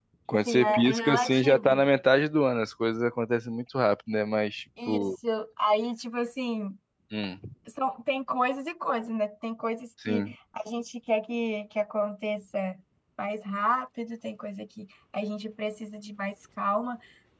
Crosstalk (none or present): present